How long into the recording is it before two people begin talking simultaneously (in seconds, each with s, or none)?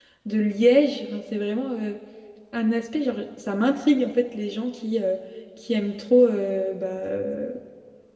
none